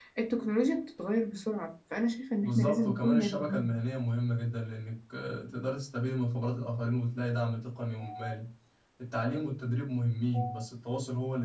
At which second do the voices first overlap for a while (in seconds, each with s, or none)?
2.4 s